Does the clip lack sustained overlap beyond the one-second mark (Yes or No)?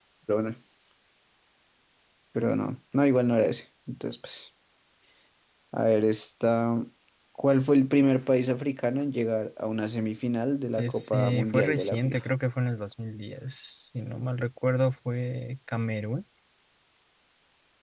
No